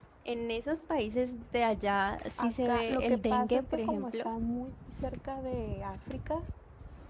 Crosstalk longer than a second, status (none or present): present